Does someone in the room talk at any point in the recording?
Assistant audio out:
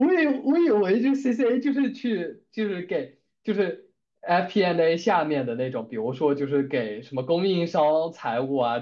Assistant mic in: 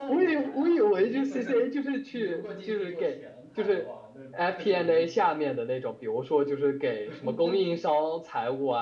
Yes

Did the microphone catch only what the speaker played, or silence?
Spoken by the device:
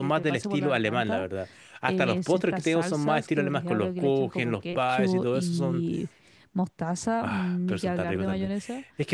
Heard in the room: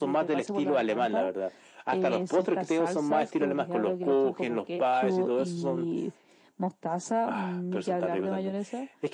Yes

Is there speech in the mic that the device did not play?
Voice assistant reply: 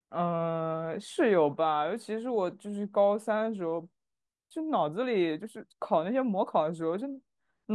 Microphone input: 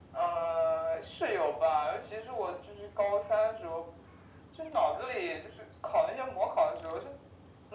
No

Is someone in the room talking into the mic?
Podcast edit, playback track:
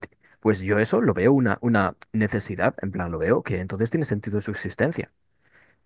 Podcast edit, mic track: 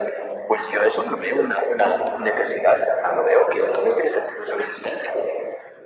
No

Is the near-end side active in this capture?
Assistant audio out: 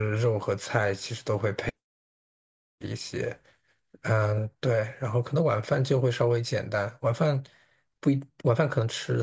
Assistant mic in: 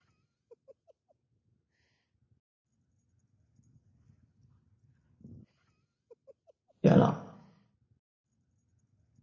Yes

